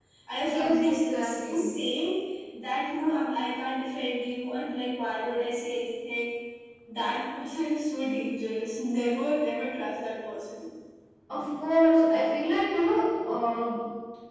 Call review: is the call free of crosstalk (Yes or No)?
No